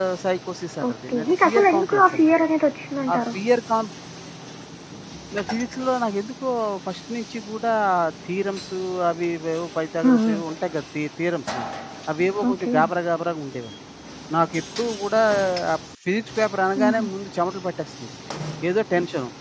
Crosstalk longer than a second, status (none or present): present